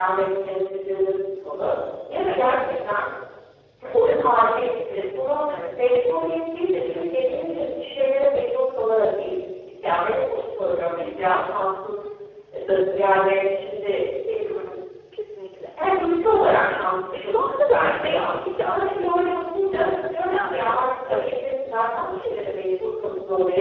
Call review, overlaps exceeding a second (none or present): present